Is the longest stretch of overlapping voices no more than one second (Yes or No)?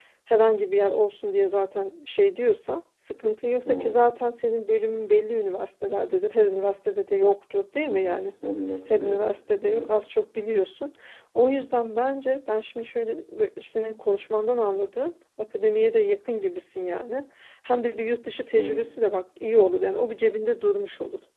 Yes